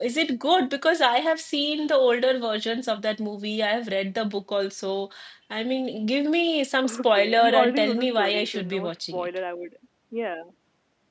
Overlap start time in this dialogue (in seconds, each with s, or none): 7.0 s